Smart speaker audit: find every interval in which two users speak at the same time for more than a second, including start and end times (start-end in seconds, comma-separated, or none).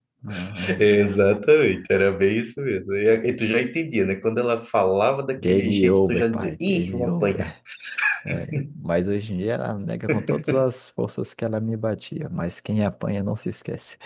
5.4-7.4